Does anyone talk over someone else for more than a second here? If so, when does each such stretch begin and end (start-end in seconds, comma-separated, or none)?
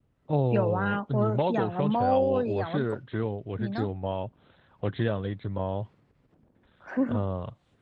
0.5-3.0